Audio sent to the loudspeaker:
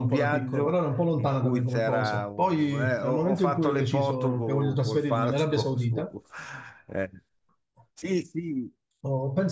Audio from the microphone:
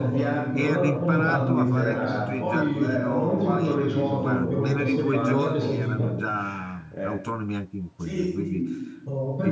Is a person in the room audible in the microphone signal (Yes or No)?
Yes